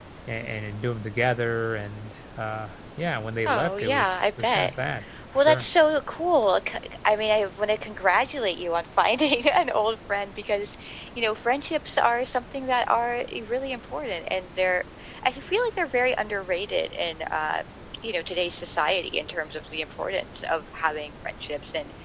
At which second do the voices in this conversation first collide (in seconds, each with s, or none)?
3.5 s